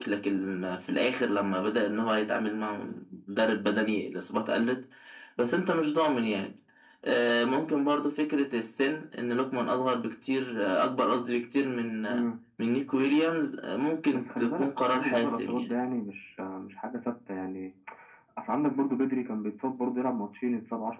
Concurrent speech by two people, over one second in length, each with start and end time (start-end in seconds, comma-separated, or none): 14.1-15.7